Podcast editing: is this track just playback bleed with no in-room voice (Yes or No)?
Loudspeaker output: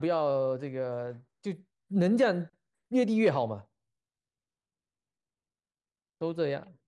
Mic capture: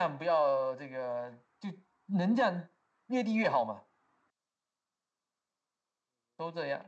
Yes